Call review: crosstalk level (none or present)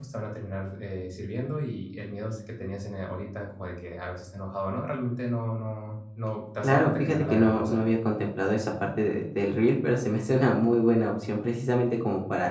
present